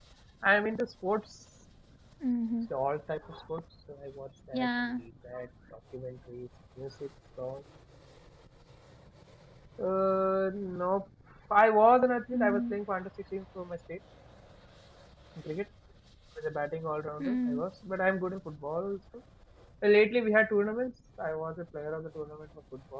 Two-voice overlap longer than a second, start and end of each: none

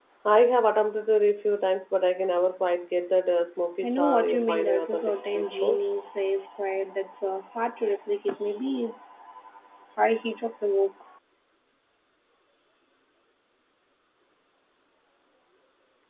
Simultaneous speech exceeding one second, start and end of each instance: 3.8-5.8

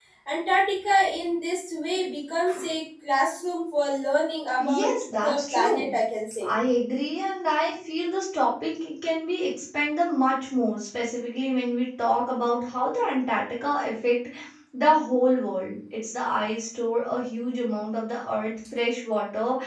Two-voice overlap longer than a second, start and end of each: 4.6-5.9

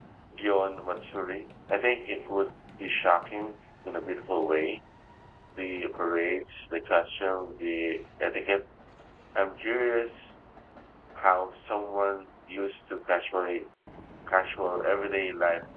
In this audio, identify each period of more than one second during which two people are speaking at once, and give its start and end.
none

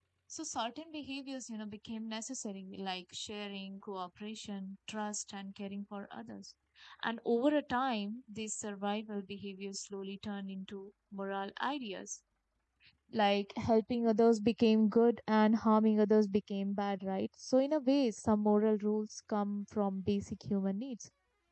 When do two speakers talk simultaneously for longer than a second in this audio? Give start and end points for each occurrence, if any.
none

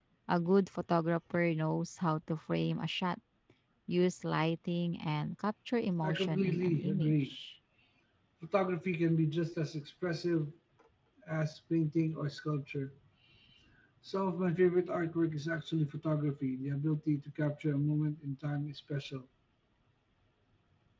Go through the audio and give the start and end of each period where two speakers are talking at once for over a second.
6.0-7.3

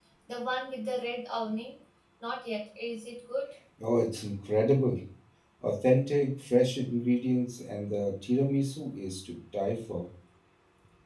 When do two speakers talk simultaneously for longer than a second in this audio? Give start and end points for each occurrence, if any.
none

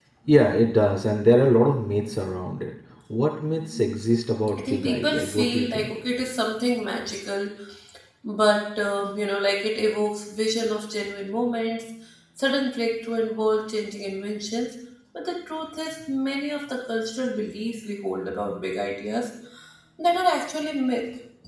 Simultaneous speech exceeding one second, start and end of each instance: 4.6-6.0

